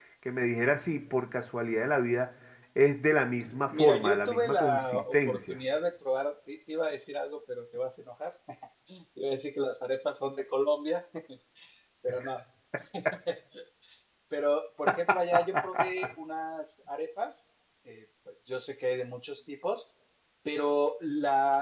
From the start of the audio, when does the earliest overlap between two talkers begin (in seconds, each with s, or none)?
3.8 s